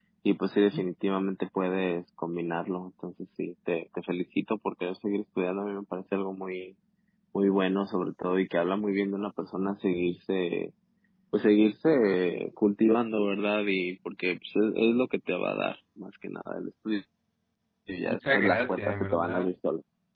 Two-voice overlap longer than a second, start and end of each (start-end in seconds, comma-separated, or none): 18.1-19.5